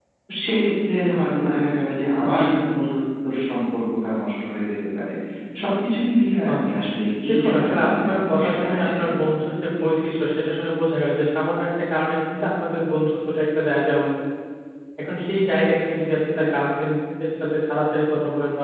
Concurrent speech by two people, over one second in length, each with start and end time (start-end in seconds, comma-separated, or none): 7.3-9.2